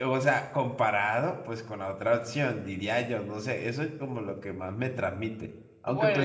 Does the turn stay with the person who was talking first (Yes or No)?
Yes